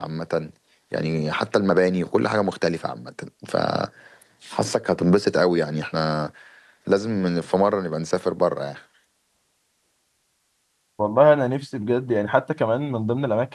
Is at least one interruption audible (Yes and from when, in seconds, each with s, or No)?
No